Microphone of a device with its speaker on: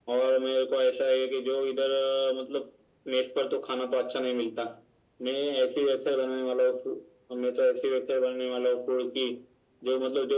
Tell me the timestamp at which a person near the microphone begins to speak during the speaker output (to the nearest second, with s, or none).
none